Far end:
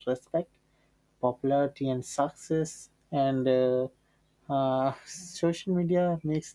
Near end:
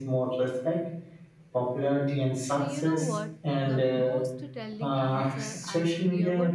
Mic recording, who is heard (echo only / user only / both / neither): both